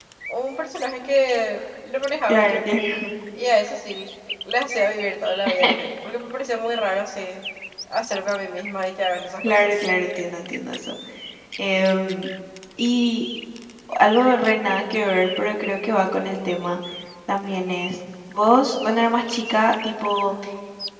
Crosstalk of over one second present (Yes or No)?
No